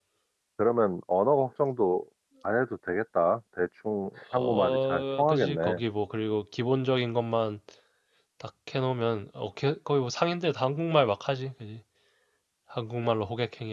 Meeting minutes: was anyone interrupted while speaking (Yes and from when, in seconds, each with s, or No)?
Yes, from 4.3 s